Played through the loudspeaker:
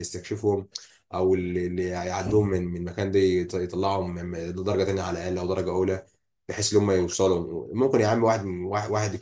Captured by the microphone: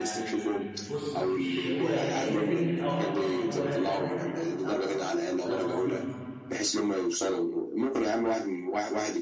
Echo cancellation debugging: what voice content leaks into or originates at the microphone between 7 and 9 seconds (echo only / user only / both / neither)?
echo only